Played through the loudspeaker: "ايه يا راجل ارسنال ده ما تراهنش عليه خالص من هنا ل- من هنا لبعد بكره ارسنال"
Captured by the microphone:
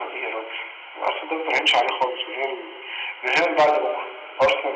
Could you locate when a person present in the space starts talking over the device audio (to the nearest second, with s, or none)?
none